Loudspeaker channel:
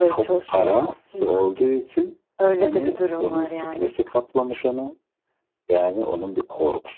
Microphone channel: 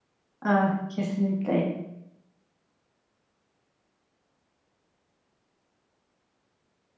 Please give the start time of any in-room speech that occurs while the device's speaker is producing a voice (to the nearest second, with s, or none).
0 s